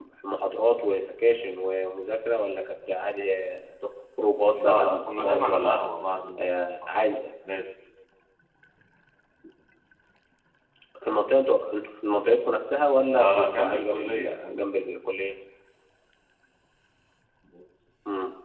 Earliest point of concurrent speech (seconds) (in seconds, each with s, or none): 4.5 s